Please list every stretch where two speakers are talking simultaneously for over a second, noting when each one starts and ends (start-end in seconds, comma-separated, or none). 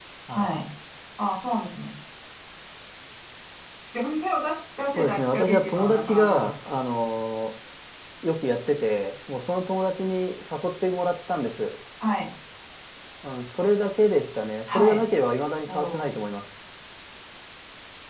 5.0-6.7